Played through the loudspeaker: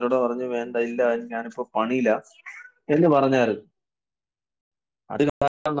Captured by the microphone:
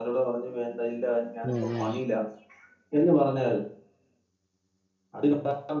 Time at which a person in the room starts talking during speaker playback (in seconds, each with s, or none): 1.5 s